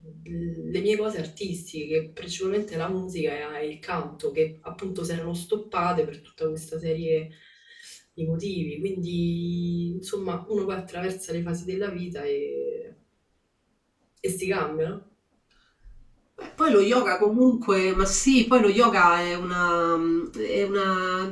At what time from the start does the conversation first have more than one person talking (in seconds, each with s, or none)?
none